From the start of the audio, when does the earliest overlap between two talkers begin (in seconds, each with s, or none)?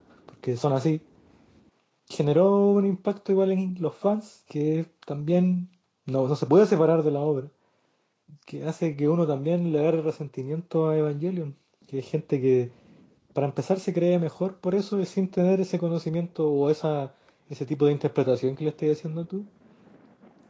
none